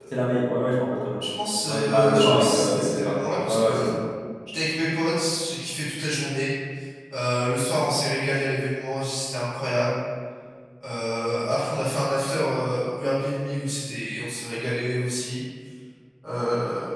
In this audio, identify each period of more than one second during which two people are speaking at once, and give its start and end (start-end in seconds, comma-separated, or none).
1.7-3.9